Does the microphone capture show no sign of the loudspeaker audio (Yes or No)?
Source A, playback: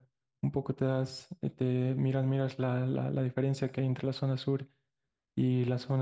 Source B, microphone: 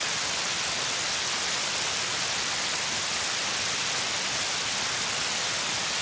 Yes